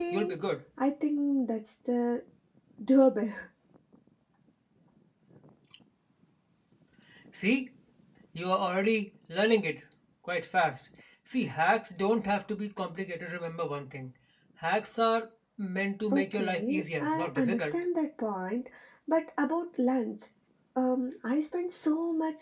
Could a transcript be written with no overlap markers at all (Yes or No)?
No